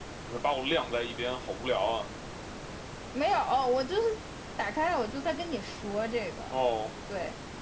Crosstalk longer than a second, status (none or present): none